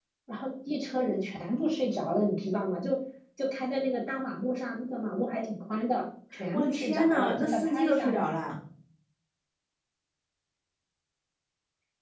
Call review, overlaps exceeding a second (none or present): present